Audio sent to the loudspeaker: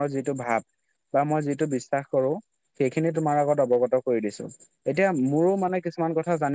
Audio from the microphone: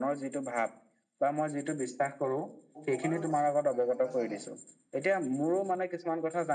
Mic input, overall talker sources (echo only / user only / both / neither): both